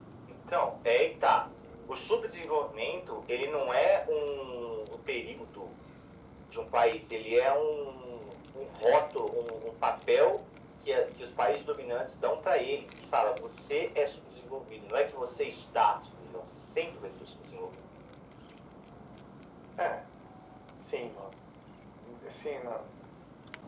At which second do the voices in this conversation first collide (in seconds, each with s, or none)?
none